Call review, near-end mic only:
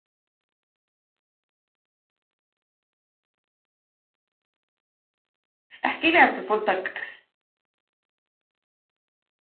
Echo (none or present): none